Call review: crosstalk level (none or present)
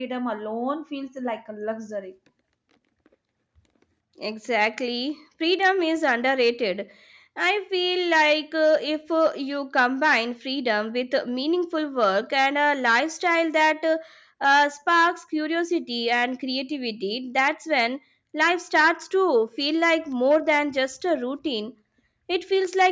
none